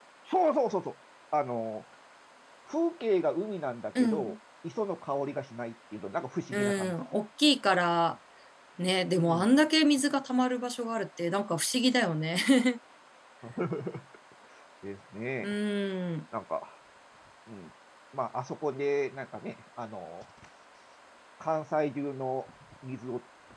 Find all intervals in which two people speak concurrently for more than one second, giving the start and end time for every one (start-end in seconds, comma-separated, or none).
none